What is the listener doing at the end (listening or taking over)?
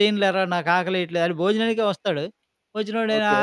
listening